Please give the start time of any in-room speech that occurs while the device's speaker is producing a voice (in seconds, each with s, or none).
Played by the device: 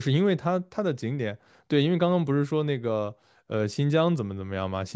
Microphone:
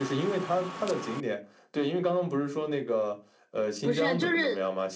3.8 s